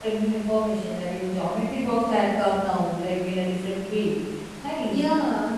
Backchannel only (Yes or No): No